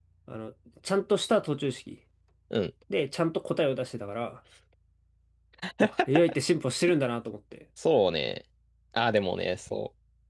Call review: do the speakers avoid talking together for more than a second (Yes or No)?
Yes